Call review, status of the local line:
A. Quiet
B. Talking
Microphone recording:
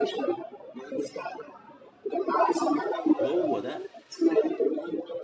B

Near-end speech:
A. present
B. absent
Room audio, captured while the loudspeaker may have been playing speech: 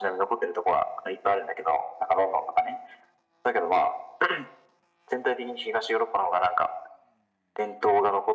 B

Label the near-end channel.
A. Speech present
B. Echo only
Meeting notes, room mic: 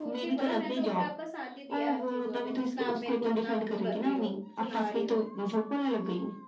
A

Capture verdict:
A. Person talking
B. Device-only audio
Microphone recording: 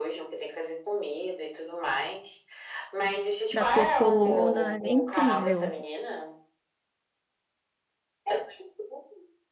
A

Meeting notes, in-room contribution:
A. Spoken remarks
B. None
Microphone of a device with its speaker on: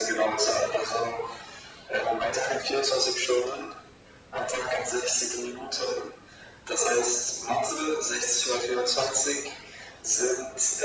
B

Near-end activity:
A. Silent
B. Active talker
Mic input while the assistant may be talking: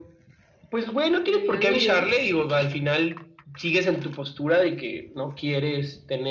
B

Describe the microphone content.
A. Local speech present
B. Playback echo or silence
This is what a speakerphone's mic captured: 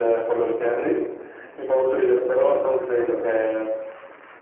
B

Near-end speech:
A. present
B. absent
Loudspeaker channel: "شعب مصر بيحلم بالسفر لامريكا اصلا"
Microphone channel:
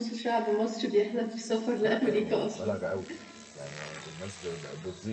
A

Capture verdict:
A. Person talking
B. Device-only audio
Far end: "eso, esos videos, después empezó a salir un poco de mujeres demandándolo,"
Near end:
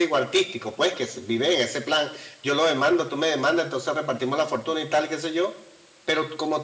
A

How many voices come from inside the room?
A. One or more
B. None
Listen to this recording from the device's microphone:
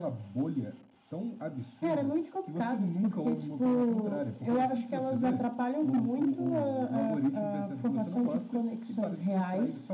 B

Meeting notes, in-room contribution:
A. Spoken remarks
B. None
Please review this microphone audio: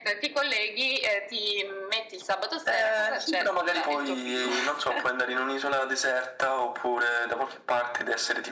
B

